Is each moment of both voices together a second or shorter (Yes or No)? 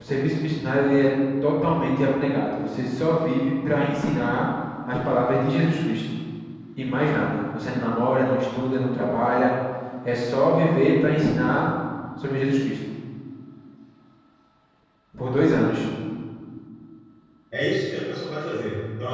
Yes